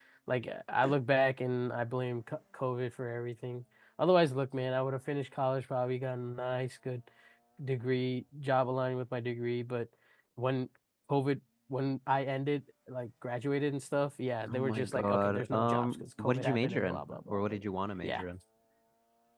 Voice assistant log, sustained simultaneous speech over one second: present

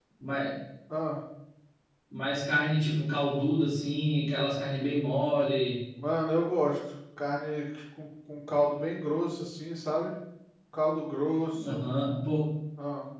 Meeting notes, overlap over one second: none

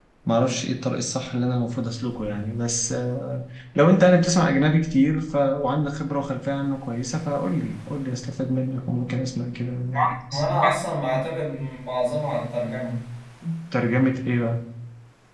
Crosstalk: none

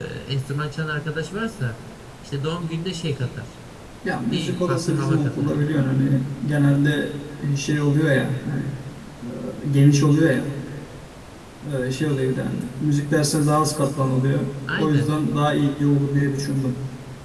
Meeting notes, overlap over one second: present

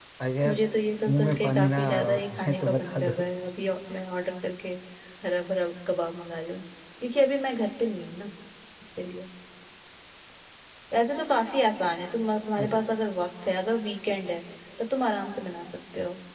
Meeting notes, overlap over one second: present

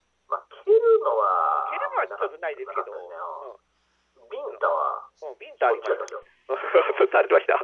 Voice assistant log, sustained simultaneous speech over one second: present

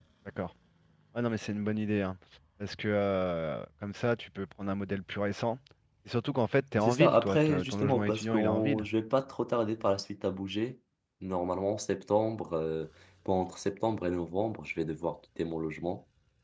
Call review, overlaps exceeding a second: present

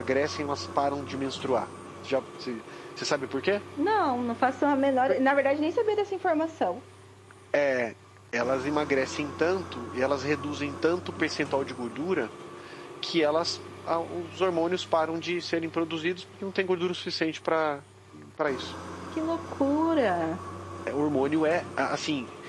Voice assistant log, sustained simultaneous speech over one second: none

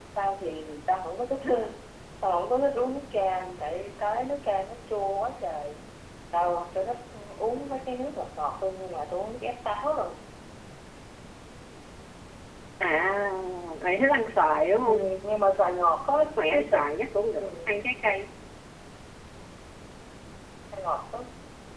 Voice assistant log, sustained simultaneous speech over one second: none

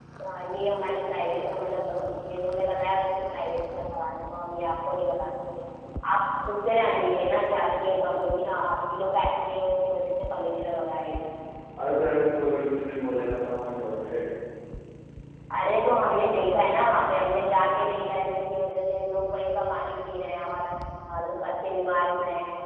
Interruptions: none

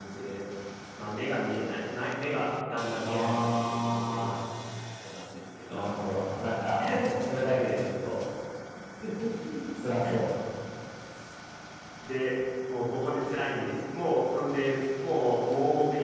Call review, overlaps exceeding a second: present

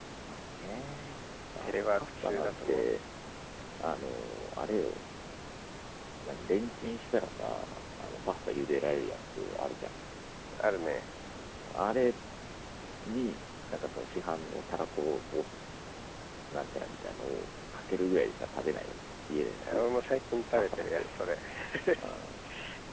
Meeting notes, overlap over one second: present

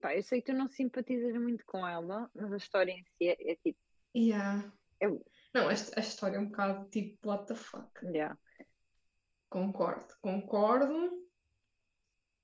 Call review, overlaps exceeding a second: none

